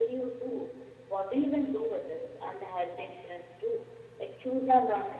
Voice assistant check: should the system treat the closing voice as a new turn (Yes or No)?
Yes